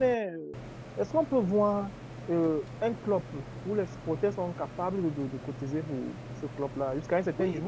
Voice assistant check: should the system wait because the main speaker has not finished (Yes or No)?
No